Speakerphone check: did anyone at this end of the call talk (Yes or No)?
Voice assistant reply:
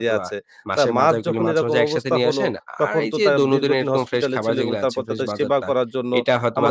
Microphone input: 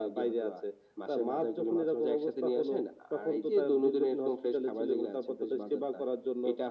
No